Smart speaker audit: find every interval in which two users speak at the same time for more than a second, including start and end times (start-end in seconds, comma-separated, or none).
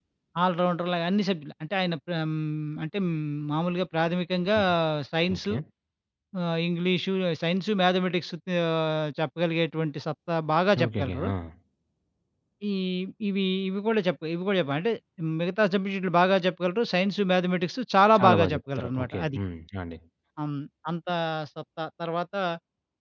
18.2-19.4